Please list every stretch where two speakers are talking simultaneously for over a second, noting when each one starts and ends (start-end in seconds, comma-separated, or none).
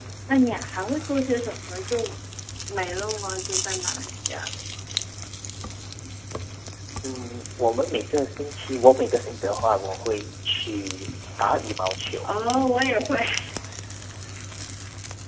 none